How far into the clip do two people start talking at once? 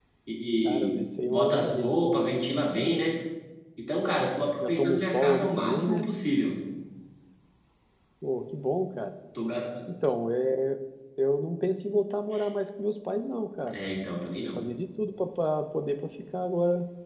0.6 s

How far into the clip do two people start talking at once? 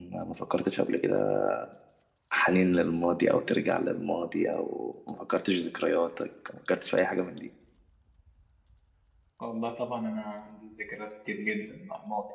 none

